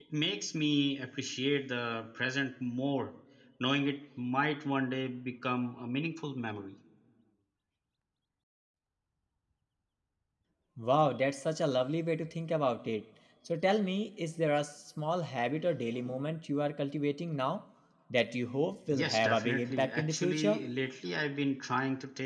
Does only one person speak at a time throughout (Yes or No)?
No